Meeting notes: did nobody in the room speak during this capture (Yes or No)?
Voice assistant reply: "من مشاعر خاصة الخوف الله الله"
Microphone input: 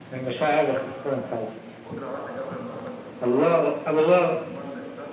No